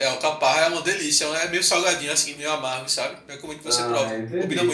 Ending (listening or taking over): taking over